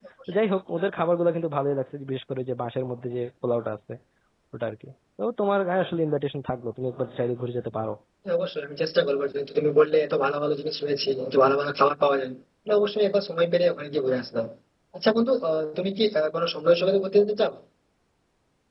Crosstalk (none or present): none